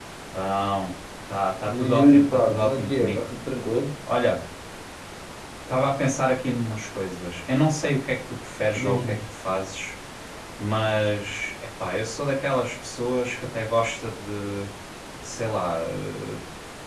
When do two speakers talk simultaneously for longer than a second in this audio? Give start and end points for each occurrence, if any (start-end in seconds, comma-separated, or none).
1.7-3.2